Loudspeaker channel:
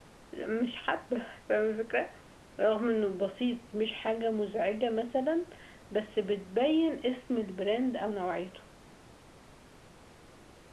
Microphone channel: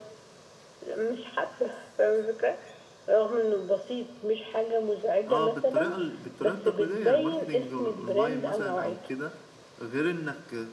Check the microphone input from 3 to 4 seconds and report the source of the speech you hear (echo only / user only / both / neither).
echo only